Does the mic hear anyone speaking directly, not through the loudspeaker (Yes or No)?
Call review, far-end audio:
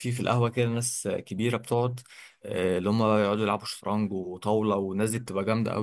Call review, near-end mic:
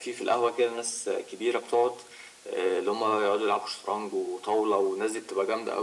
No